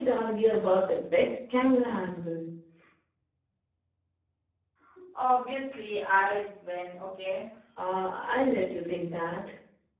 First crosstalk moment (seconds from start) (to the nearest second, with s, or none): none